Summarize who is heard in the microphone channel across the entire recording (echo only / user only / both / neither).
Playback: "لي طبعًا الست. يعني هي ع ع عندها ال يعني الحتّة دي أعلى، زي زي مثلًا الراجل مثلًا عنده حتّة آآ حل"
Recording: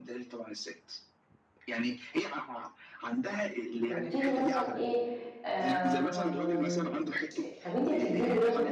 both